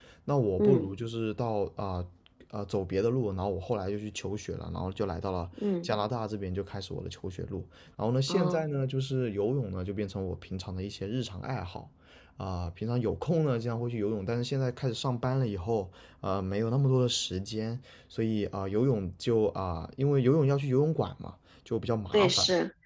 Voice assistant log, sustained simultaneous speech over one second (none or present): none